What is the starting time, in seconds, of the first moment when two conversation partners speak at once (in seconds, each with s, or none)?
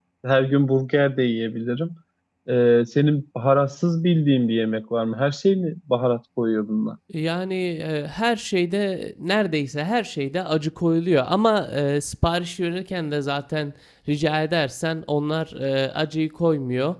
none